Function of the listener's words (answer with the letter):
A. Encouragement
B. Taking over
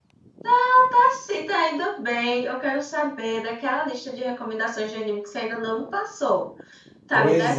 B